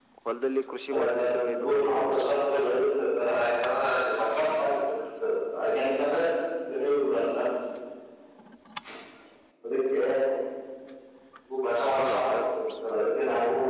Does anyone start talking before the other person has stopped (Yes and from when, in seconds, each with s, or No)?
Yes, from 0.9 s